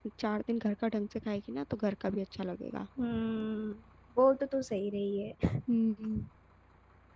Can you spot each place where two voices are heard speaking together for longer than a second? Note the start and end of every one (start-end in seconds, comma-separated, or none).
none